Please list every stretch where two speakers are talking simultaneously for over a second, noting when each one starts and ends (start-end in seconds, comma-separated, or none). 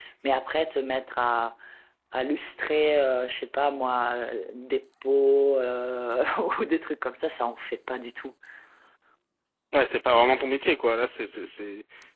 none